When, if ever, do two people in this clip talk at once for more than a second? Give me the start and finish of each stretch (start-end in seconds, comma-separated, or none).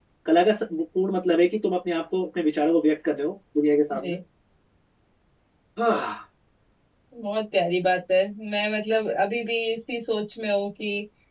none